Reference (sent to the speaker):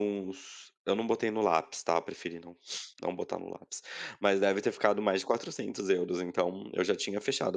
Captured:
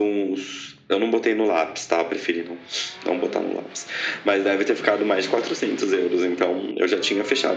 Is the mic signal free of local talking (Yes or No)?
Yes